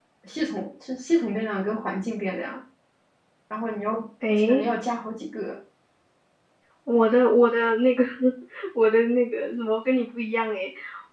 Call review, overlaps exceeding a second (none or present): none